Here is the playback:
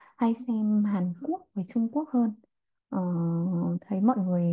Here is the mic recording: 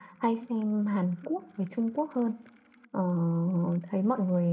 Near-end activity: none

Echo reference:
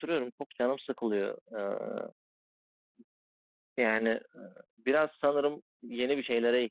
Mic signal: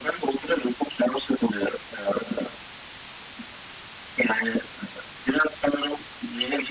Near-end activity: none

